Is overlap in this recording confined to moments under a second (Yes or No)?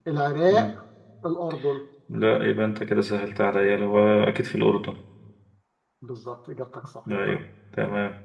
Yes